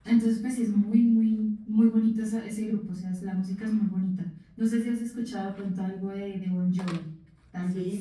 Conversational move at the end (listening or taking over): taking over